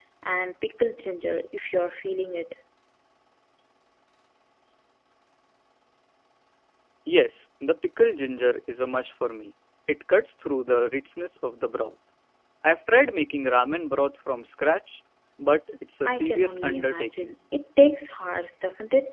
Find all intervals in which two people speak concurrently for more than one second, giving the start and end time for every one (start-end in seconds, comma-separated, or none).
16.1-17.4